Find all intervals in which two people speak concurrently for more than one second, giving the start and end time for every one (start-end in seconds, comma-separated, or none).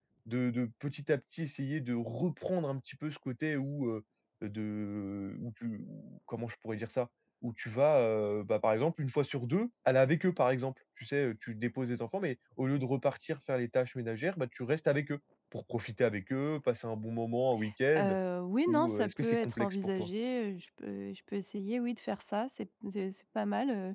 18.7-20.1